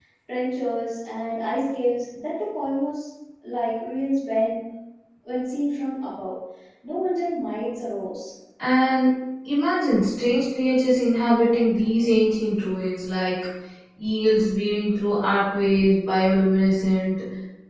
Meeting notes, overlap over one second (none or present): none